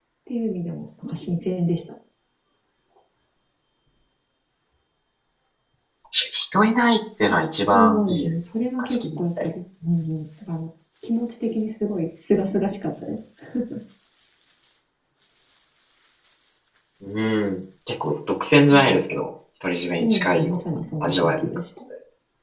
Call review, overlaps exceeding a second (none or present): present